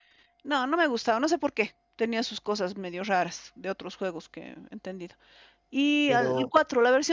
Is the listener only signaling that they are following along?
Yes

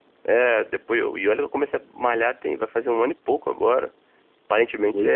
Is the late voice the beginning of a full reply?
Yes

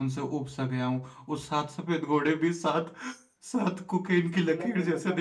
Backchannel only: No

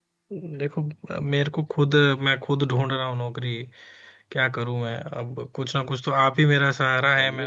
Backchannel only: Yes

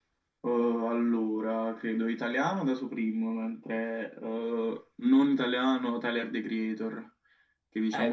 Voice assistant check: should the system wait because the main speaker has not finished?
No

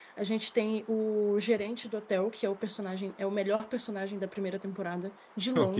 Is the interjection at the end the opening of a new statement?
No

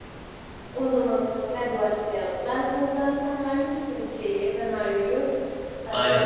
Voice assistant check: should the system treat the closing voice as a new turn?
No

